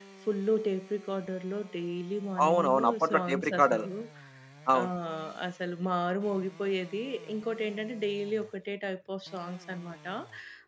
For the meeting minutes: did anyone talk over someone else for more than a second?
Yes, from 2.4 s

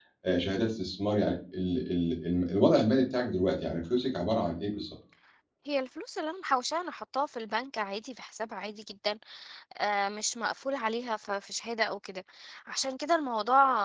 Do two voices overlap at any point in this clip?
No

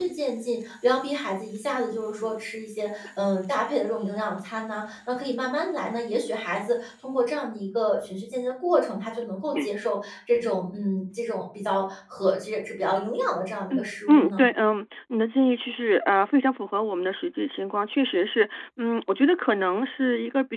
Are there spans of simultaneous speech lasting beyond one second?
No

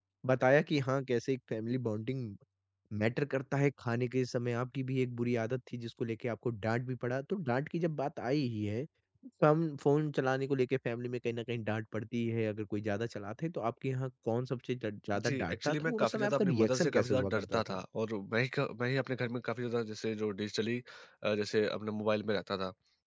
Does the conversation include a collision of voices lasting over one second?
Yes, from 15.2 s

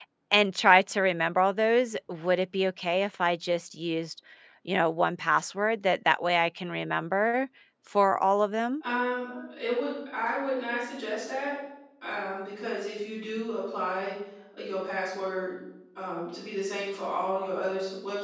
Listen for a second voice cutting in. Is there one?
No

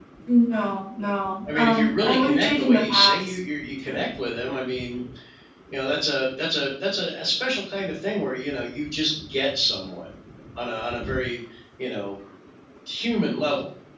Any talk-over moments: Yes, from 1.4 s

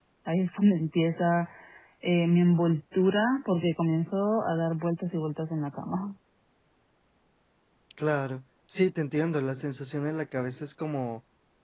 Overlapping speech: No

